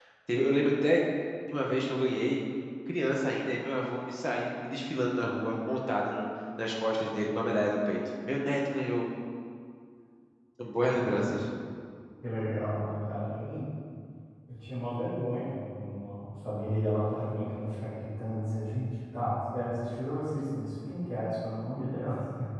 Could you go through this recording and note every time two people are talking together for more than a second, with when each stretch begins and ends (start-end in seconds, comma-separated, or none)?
none